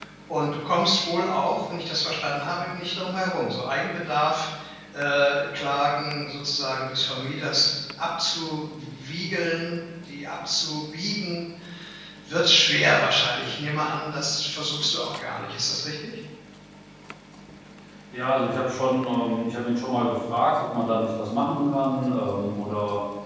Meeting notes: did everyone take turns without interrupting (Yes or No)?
Yes